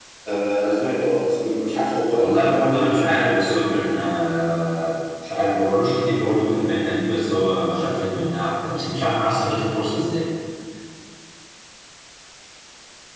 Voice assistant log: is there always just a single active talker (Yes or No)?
No